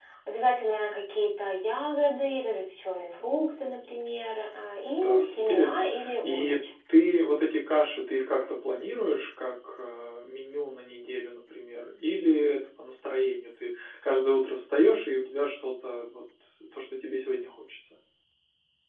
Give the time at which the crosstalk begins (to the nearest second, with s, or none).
5 s